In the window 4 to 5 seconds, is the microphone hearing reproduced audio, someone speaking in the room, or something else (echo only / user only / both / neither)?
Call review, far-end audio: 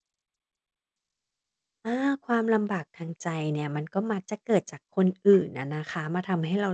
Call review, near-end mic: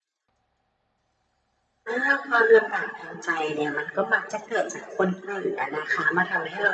echo only